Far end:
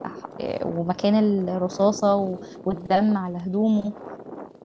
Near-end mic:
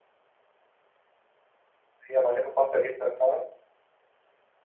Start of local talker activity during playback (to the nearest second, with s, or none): 2 s